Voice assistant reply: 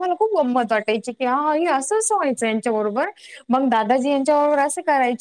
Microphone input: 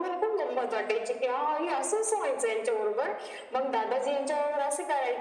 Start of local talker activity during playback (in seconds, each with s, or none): none